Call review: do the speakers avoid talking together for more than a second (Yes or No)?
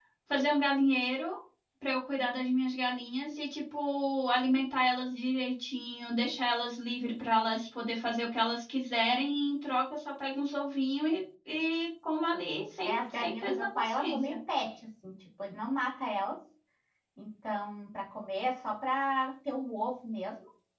No